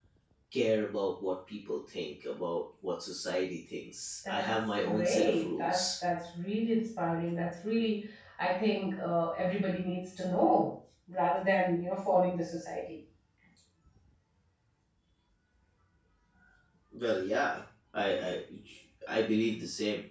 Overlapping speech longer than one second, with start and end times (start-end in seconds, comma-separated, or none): 4.3-5.9